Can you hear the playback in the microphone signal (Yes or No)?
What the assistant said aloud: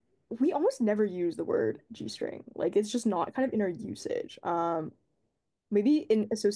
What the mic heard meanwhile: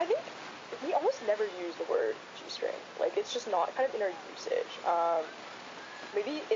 Yes